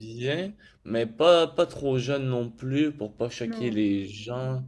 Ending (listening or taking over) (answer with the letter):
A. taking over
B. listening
B